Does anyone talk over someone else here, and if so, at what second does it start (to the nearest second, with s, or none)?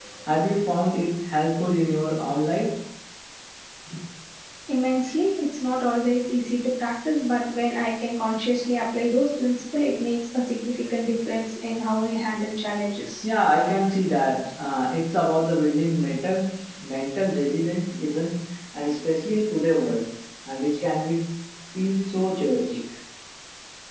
none